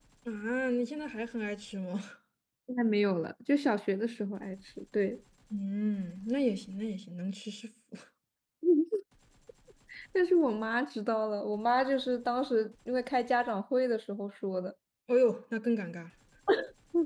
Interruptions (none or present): none